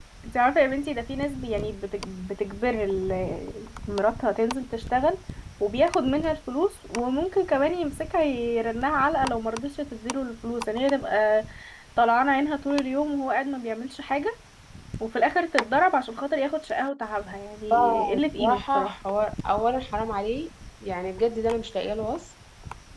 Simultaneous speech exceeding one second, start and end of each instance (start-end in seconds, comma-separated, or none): 17.7-18.9